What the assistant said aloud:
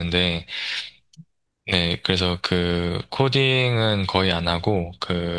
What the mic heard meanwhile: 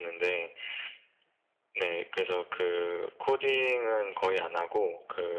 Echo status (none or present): present